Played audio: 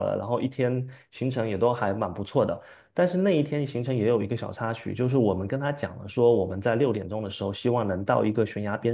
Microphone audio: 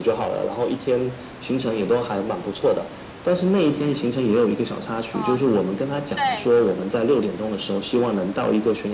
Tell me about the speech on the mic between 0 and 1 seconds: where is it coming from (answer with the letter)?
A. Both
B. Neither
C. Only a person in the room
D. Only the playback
D